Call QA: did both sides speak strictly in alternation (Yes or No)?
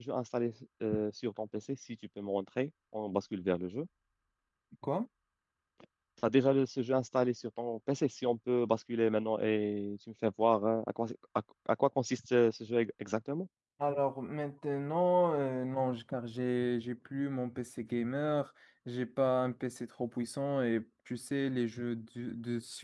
Yes